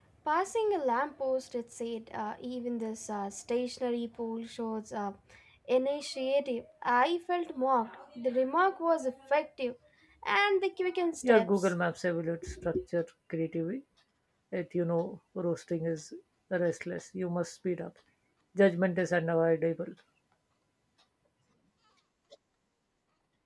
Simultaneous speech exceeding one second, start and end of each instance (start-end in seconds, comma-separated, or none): none